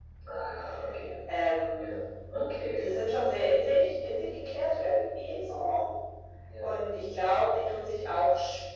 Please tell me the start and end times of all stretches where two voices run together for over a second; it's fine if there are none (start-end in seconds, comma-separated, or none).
none